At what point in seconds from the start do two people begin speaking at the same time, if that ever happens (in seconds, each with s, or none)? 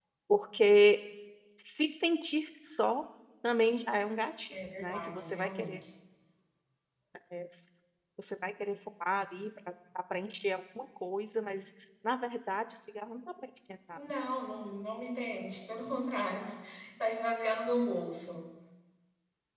4.5 s